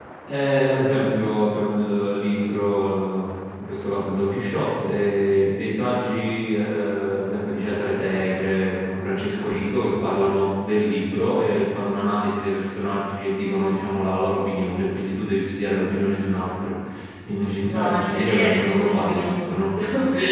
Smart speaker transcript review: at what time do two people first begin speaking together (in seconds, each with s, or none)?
17.7 s